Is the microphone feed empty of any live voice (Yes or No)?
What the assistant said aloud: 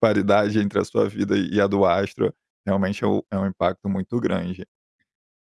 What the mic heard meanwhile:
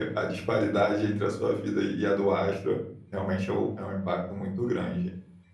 Yes